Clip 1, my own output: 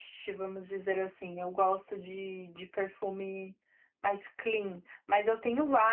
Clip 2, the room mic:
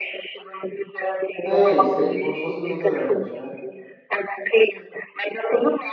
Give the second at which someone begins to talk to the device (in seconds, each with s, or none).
1.4 s